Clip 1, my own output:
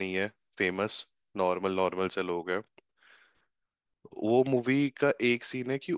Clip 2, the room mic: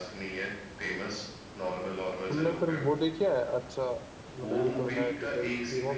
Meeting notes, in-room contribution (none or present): present